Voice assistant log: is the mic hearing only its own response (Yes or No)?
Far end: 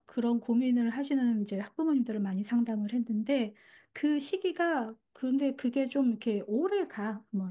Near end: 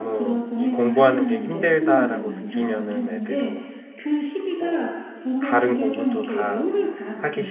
No